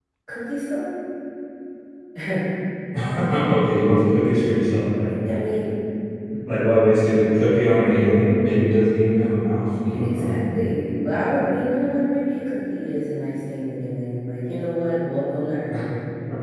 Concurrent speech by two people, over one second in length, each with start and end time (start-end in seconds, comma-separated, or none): none